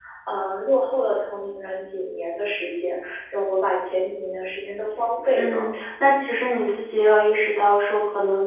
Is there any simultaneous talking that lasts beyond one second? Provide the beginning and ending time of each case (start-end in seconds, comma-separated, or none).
none